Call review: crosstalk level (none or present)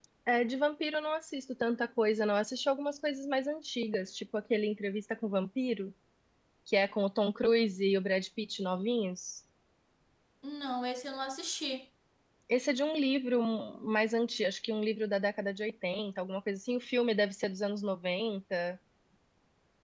none